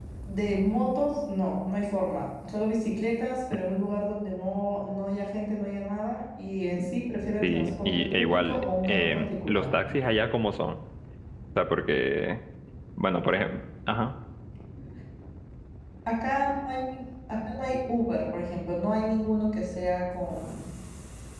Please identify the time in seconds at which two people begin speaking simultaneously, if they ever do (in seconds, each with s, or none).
7.4 s